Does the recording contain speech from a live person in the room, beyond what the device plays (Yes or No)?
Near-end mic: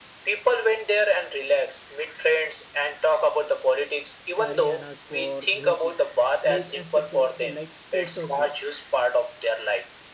Yes